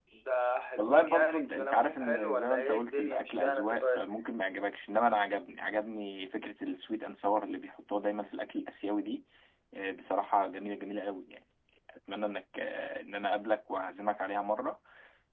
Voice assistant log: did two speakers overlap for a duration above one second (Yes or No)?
Yes